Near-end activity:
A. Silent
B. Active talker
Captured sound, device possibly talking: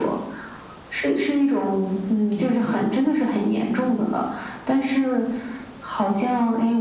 B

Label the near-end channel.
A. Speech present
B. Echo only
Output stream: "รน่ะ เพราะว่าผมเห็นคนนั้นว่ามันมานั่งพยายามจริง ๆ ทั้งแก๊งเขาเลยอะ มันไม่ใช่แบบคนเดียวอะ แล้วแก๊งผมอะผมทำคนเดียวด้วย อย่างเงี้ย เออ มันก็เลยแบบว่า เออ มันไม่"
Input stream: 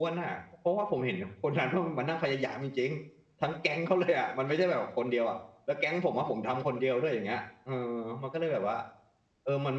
B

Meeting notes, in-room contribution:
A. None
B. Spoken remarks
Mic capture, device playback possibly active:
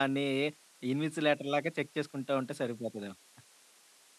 B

